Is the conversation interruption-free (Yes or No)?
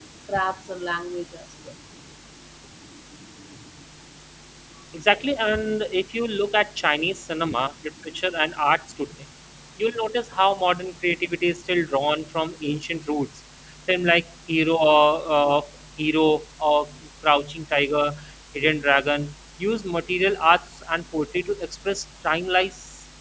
Yes